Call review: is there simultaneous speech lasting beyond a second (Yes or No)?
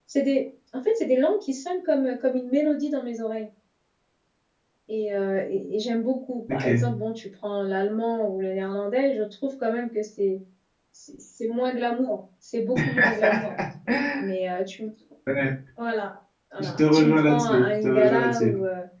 Yes